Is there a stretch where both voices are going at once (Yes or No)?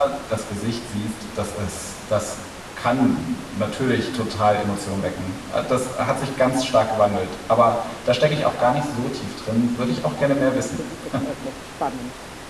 No